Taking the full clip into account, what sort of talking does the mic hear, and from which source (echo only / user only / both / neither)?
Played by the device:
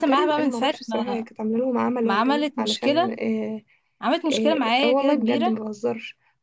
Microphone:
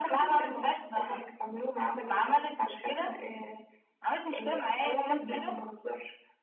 echo only